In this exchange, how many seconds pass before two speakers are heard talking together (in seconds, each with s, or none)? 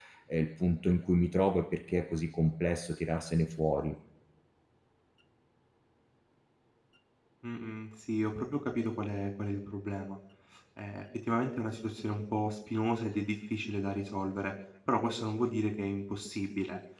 none